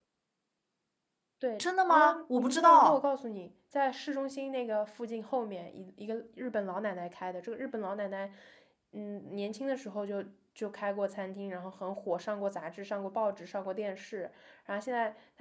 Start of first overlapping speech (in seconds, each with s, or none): 1.6 s